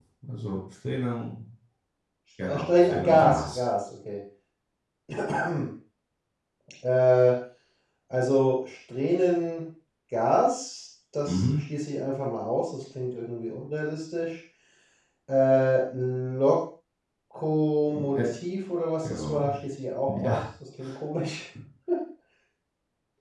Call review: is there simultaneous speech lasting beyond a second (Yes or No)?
Yes